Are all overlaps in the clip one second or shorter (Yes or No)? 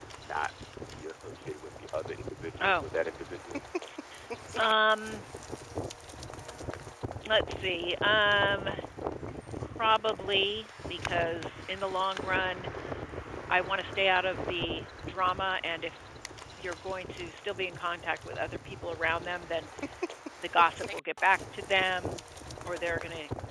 Yes